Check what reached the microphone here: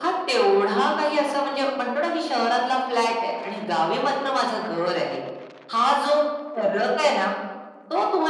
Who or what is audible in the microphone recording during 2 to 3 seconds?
echo only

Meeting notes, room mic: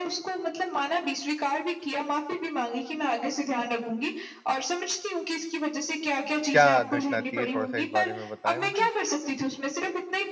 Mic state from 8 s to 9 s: both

